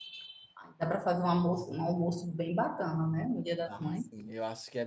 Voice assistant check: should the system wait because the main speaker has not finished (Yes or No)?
No